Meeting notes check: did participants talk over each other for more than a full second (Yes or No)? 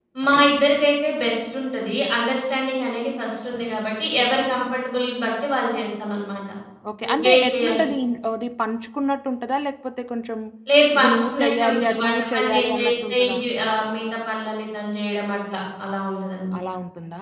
Yes